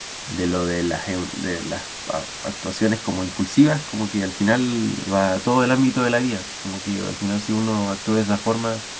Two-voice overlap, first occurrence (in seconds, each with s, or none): none